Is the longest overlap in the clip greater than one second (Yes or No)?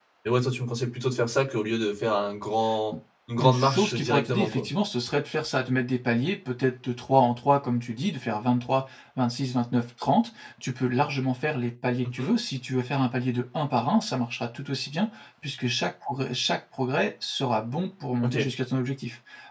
Yes